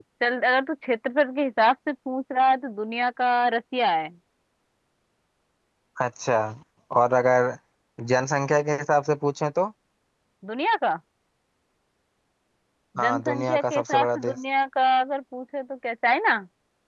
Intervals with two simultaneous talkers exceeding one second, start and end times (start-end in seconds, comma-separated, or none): 13.0-14.4